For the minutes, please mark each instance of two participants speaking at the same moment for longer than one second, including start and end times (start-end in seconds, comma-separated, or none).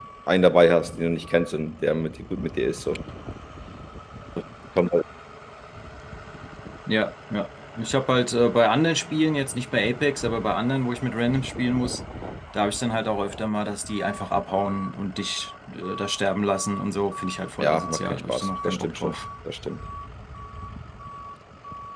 17.6-19.1